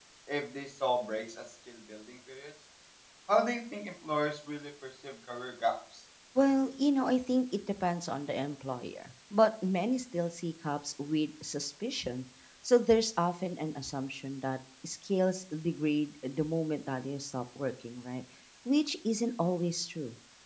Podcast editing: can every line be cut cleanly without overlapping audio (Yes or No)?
Yes